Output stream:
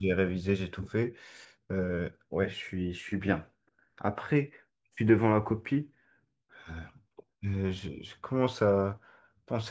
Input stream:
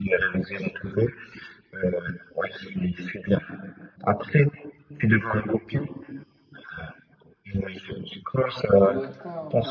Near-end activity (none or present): present